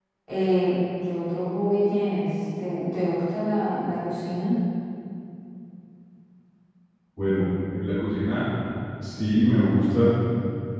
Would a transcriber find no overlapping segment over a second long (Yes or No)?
Yes